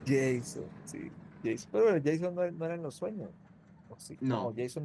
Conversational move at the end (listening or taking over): listening